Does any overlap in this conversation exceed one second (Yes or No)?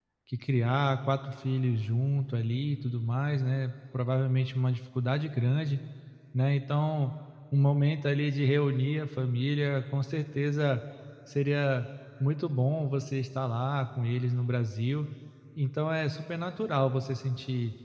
No